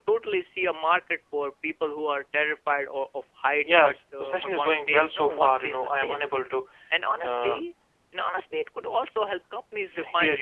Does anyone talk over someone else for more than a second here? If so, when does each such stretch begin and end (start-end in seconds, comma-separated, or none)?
3.5-6.2